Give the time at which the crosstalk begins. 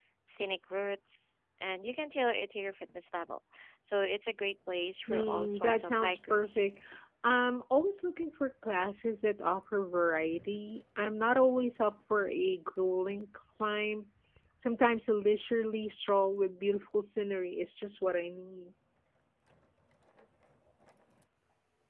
5.1 s

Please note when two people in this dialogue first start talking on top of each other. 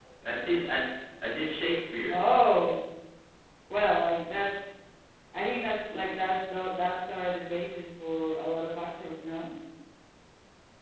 none

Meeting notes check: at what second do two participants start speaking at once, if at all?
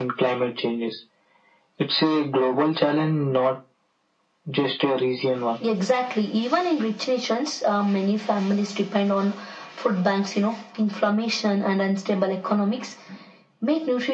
none

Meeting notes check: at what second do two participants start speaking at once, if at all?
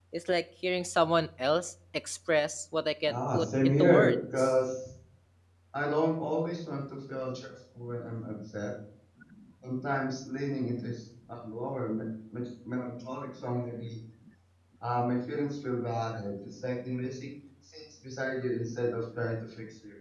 3.1 s

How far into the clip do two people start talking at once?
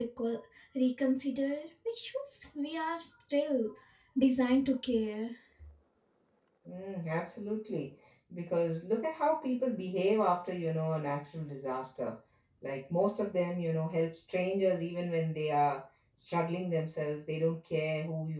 none

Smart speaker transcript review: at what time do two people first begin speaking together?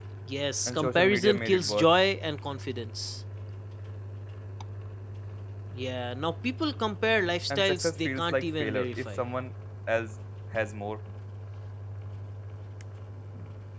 0.7 s

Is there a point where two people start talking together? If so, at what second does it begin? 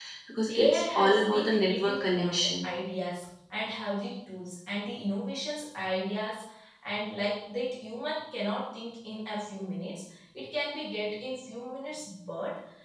0.6 s

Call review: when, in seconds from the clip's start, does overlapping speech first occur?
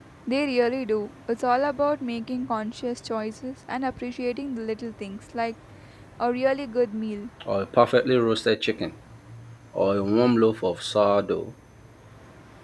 none

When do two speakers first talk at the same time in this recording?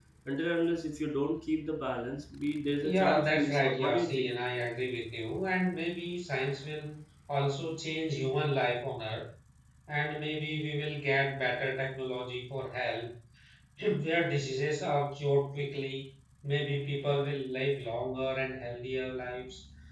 2.8 s

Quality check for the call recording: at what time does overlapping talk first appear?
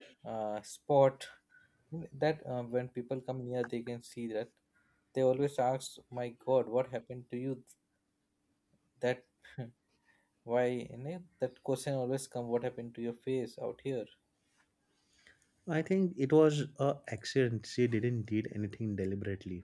none

